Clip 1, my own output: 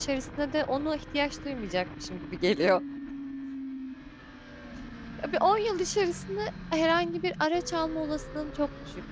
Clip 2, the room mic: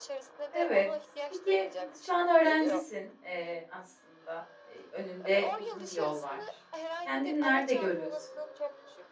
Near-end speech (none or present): present